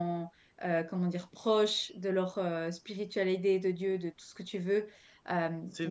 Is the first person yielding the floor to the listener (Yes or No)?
No